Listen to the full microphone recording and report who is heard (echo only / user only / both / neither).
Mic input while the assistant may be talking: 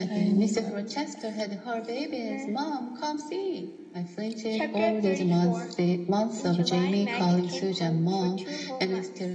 echo only